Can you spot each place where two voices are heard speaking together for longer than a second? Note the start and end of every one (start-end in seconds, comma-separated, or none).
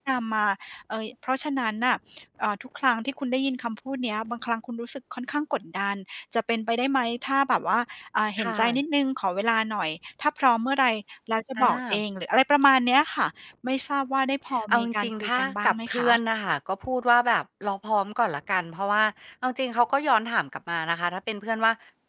14.7-16.1